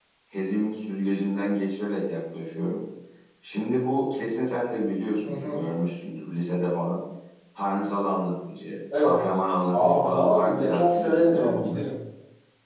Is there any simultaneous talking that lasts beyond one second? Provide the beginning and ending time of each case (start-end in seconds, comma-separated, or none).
9.7-11.9